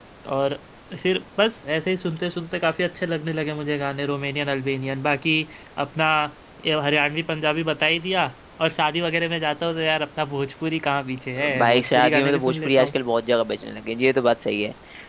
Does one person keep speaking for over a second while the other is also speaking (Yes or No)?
Yes